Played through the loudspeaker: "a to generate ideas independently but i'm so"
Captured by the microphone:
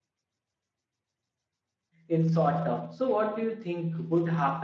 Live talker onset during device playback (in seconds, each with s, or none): 2.1 s